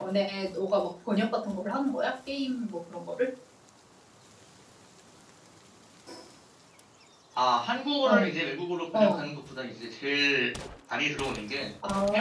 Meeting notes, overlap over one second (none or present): none